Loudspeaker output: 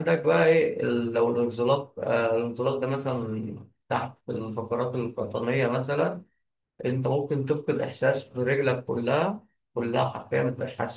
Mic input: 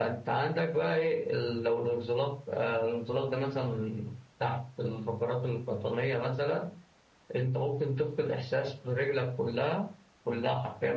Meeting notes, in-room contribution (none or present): none